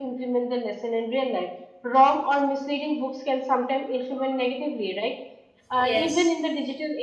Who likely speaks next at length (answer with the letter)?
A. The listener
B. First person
B